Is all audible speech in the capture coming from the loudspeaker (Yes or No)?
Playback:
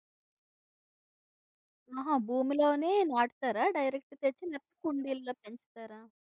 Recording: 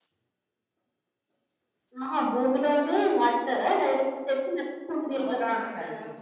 No